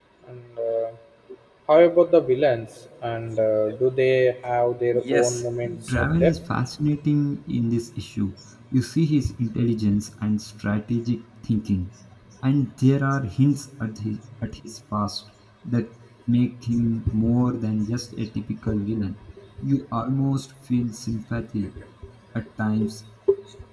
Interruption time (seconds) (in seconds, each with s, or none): 4.9 s